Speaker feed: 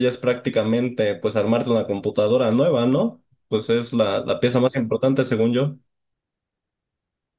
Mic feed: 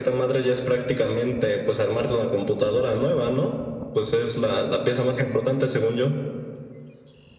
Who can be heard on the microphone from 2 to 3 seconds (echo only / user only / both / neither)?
echo only